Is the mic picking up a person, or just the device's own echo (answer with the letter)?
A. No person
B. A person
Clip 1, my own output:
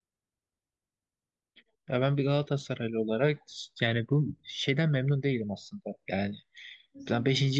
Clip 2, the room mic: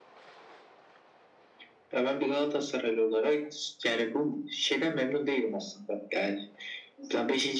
A